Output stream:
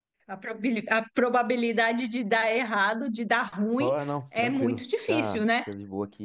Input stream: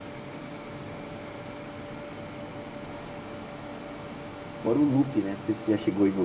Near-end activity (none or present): present